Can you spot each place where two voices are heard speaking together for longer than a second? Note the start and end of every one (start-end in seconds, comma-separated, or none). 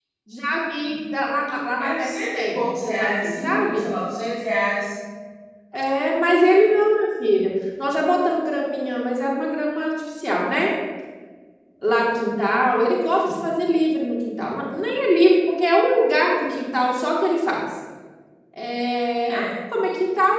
1.8-3.8